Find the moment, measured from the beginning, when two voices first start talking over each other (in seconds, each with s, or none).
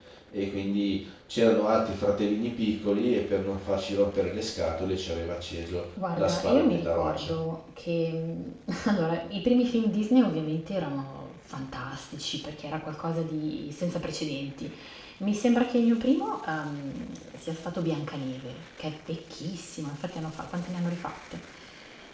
6.0 s